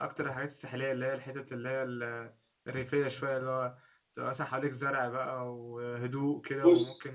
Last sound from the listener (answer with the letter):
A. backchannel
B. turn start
A